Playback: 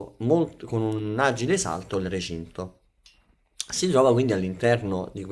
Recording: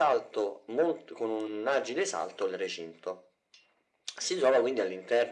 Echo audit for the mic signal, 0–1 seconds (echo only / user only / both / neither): echo only